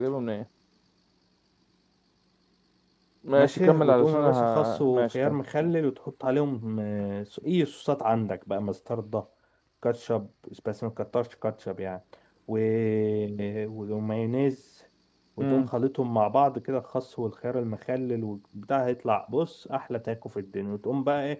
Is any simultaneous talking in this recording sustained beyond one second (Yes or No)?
Yes